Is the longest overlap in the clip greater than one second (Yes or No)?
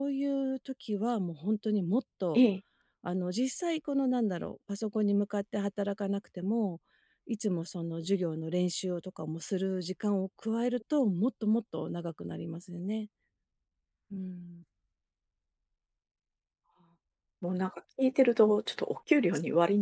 No